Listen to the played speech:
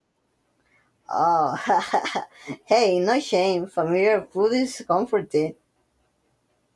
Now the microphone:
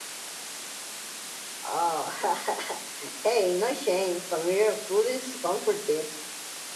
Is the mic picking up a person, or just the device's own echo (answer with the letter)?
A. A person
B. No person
B